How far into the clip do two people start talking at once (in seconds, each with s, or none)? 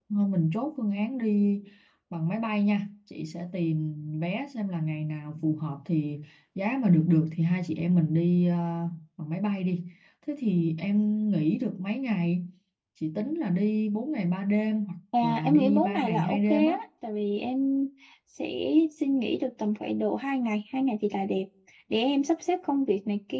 15.1 s